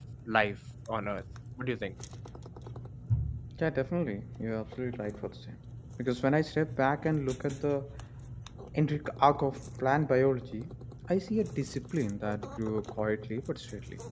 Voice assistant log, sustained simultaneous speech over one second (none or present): none